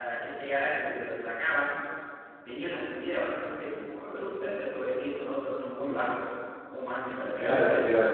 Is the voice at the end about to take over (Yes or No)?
Yes